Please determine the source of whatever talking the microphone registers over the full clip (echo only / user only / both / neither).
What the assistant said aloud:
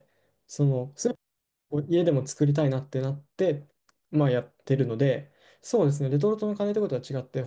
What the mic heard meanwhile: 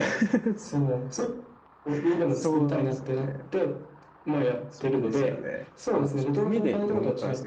both